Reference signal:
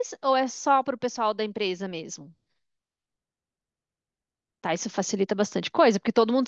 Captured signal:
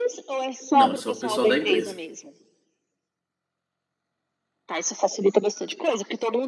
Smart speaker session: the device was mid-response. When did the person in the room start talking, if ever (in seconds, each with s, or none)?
0.7 s